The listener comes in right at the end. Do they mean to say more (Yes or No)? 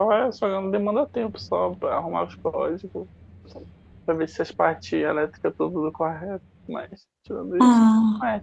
No